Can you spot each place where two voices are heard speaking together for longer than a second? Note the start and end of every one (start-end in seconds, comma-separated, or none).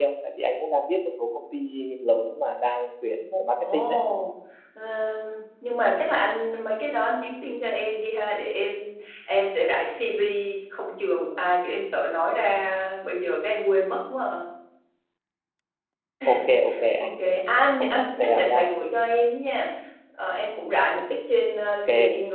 17.0-18.6